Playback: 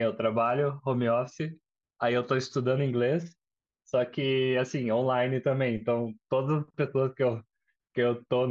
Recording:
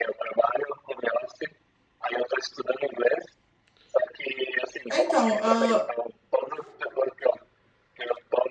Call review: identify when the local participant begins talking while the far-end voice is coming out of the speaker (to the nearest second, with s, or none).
5 s